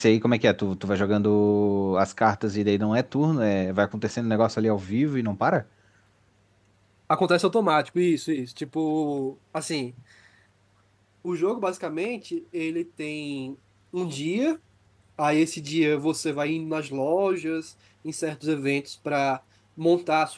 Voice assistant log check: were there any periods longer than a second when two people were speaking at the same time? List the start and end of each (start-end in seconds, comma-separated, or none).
none